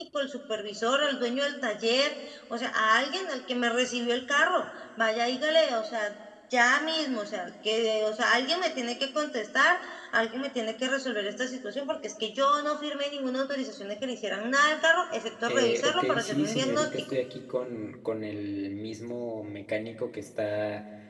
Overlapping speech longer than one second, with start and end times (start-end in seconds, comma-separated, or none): 15.5-16.9